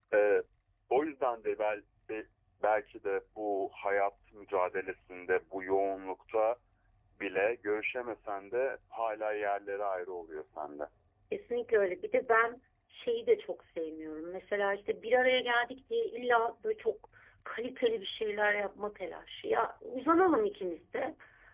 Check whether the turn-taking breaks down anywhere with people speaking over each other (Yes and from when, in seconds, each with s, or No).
No